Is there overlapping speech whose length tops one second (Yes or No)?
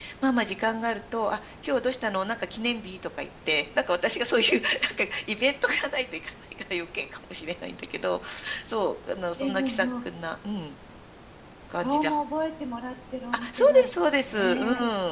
Yes